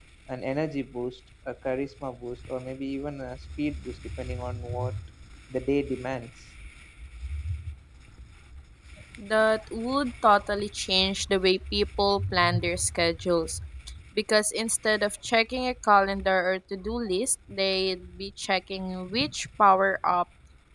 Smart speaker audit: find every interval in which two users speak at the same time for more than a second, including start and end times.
none

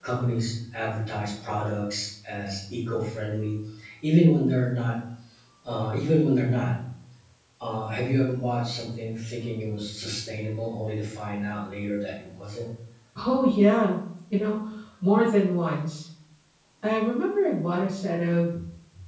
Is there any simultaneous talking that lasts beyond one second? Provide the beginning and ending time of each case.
none

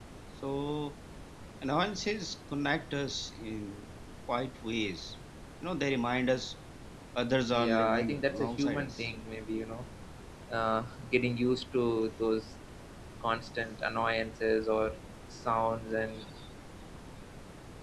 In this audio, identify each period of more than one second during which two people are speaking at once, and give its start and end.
7.5-9.1

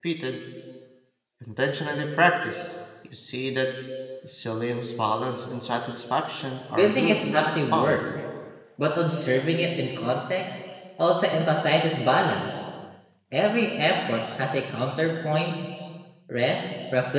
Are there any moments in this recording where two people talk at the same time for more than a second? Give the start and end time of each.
6.7-8.0

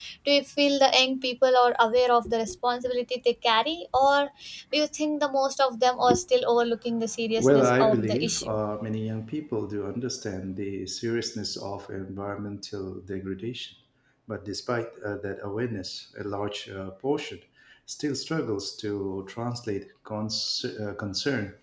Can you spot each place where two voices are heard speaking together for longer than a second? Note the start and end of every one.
7.4-8.6

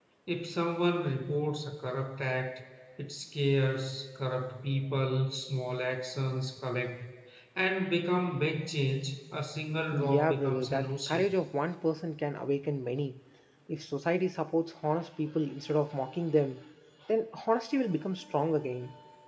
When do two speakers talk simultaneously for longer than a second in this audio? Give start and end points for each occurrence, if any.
9.9-11.2

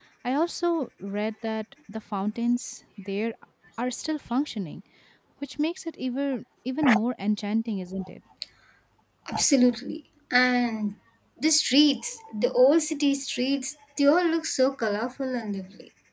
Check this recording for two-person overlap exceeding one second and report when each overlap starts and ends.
none

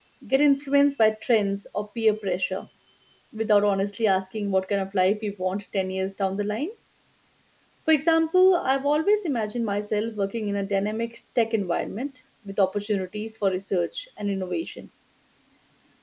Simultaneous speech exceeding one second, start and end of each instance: none

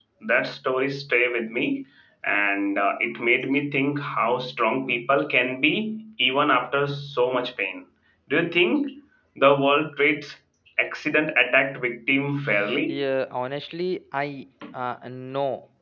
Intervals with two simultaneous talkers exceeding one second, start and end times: none

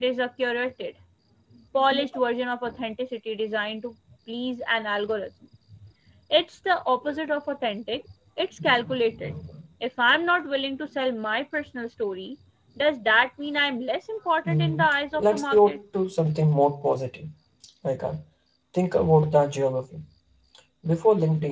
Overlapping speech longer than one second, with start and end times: 14.4-15.8

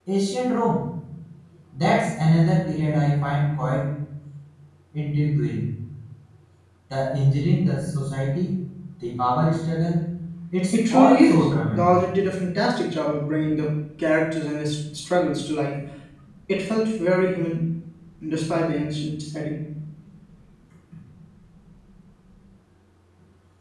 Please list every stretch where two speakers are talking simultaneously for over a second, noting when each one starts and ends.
10.7-12.0

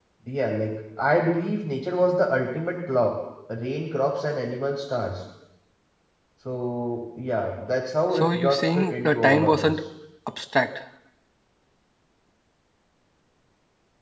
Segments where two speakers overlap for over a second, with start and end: 8.1-9.8

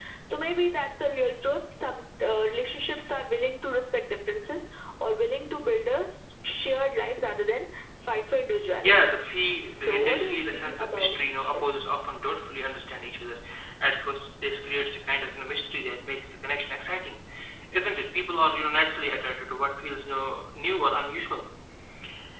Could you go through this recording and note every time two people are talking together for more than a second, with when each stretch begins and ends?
9.7-11.8

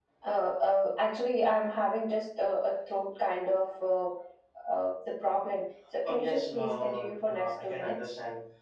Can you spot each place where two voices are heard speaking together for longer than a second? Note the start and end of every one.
6.0-8.1

